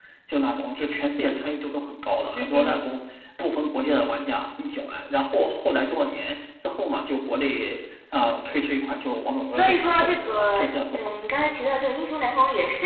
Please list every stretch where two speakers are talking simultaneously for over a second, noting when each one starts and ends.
9.5-11.0

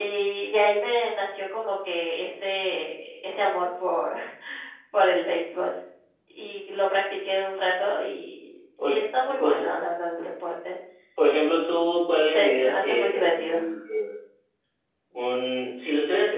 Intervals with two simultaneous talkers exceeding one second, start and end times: 12.3-13.6

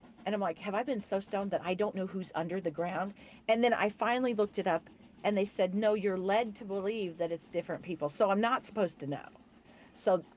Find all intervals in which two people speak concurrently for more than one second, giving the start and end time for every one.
none

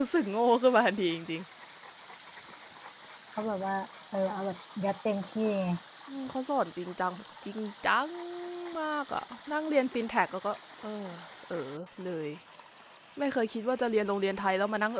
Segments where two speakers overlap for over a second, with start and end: none

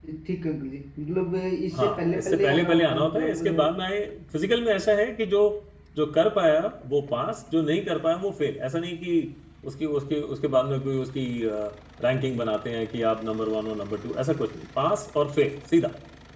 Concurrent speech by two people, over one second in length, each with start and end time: 1.8-3.4

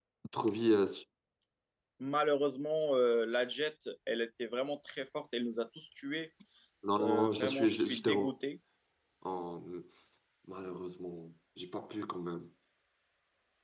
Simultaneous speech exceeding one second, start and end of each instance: 7.0-8.3

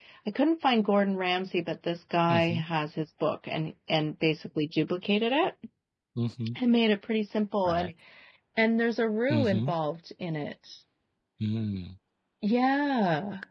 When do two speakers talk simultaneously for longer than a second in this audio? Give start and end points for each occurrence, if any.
none

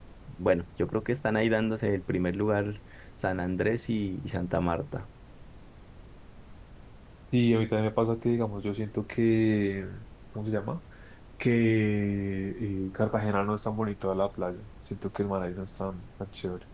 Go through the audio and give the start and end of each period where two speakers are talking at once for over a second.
none

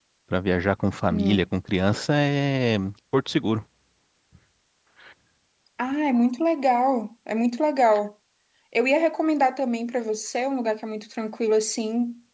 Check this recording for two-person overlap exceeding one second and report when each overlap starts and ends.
none

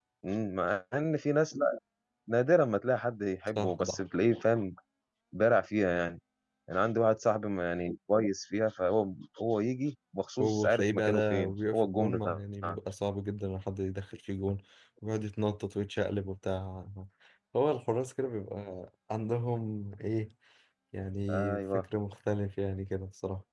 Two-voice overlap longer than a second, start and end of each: 10.4-12.4

